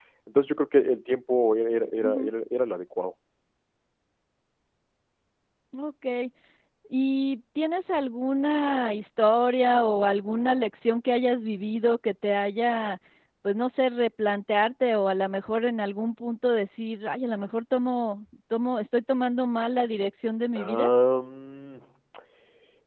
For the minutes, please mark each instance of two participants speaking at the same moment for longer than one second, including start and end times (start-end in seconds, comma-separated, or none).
none